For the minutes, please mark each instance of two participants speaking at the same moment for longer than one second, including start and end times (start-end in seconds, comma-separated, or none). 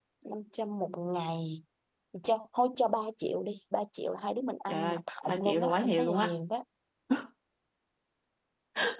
4.7-6.3